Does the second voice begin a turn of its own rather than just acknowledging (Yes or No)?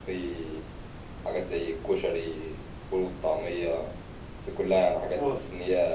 No